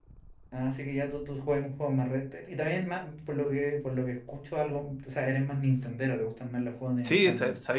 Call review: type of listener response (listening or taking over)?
taking over